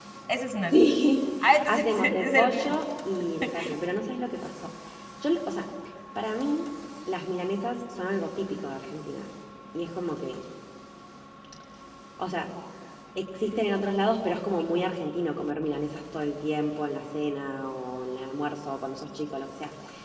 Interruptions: present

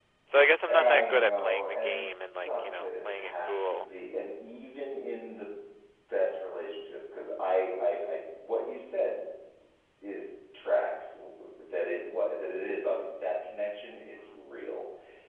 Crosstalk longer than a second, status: present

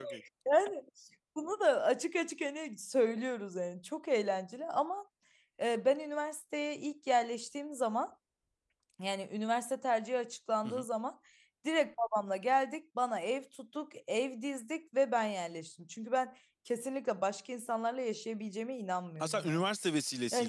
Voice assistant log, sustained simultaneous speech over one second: none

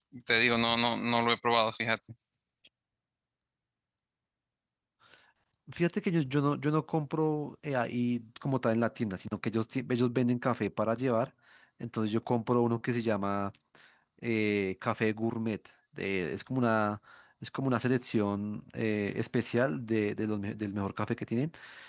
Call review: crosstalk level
none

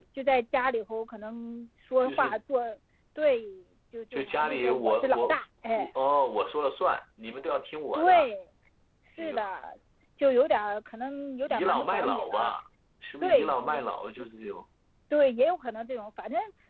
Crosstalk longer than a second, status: present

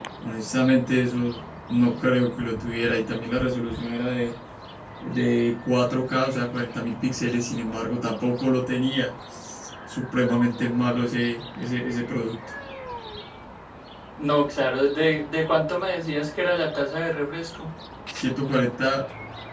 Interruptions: none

